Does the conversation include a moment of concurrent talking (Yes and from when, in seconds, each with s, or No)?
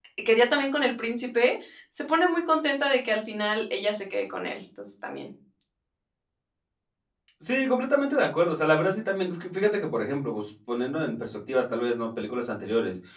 No